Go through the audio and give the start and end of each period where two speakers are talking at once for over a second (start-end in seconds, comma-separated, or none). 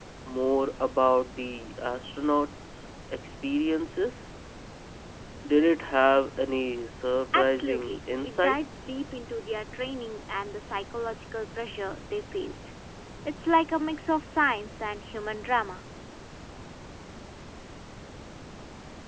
7.3-8.8